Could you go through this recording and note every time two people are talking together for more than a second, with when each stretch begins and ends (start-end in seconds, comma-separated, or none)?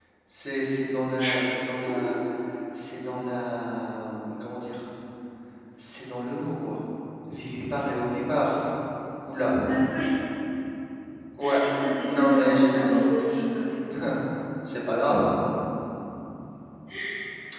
12.0-13.4